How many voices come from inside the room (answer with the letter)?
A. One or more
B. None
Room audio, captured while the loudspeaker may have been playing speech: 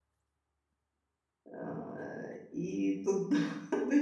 A